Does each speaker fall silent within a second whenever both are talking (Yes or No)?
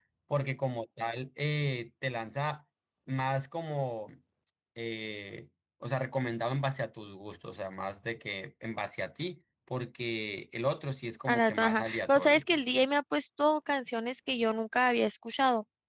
No